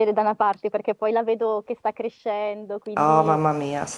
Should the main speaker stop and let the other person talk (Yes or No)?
Yes